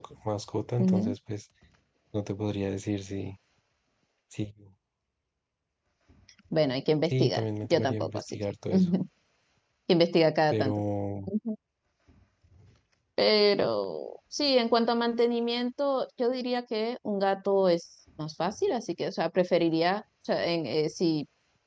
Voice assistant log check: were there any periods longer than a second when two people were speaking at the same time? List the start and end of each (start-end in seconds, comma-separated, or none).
7.1-8.4